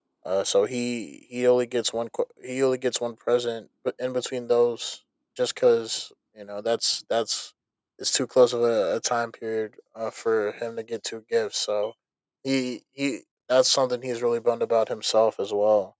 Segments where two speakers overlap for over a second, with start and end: none

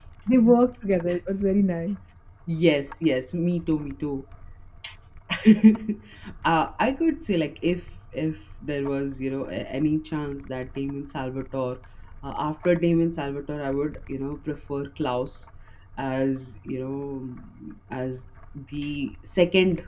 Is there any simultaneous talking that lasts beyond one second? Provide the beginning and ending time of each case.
none

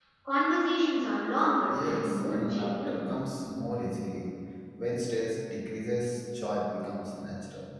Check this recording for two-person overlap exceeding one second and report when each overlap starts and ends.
1.7-3.0

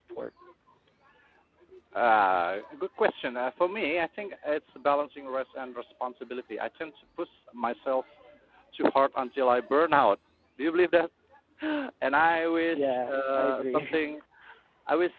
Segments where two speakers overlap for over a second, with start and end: 12.7-14.0

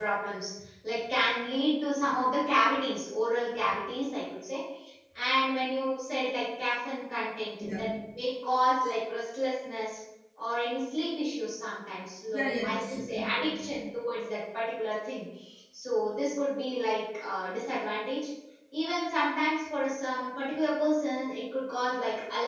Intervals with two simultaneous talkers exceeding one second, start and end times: 12.3-13.6

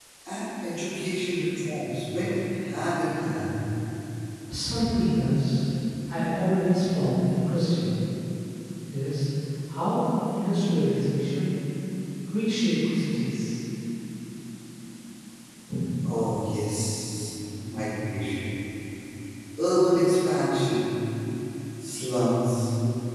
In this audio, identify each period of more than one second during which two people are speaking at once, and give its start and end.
none

